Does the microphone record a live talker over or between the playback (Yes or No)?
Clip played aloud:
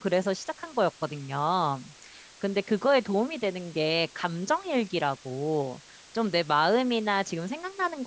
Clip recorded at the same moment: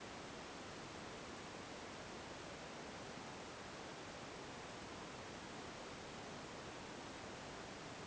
No